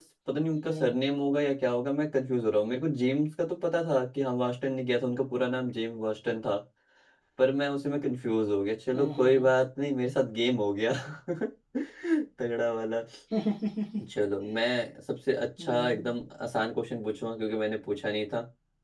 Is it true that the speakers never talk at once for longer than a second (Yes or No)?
Yes